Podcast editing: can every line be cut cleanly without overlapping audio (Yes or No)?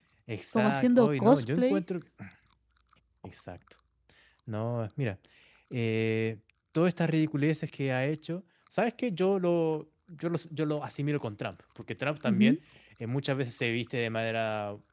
No